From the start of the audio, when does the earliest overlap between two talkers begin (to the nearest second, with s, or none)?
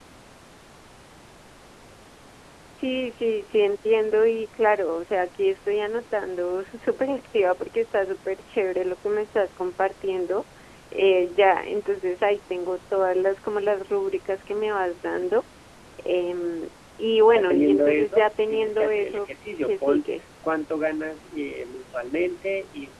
17 s